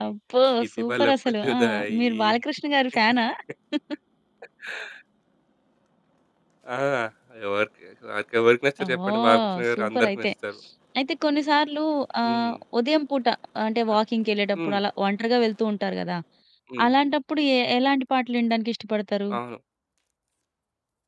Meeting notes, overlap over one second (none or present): present